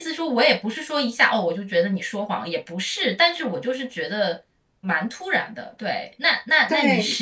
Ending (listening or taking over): listening